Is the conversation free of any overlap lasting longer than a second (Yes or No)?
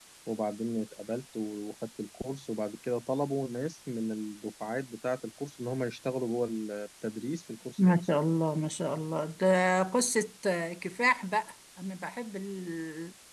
Yes